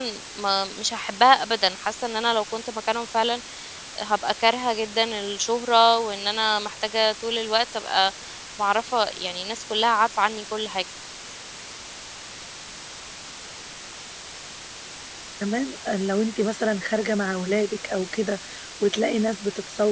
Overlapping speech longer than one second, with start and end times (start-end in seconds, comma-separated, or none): none